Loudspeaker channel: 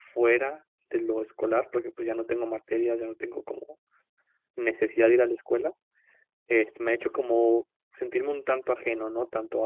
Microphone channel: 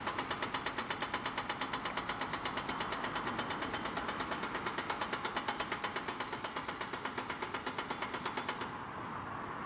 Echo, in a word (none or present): none